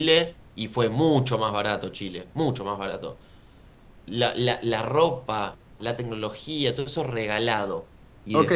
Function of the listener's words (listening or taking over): taking over